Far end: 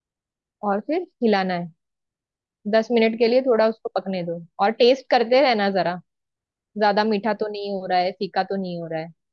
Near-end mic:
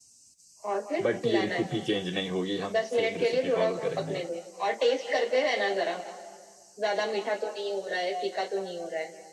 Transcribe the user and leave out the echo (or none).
बट ये रेसिपी चेंज नहीं होगी हम सेम रेसिपी फॉलो करेंगे